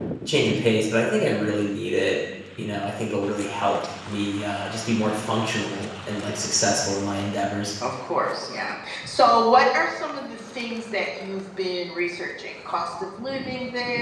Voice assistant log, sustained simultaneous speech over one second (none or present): none